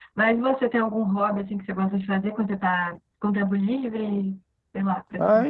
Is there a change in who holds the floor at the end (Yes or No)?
Yes